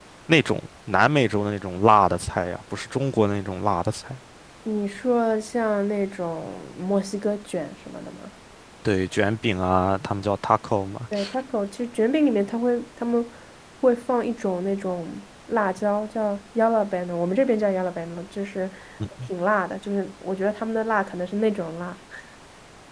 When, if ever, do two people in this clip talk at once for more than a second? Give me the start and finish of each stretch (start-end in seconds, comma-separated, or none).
none